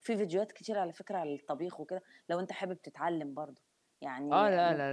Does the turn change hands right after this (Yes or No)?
Yes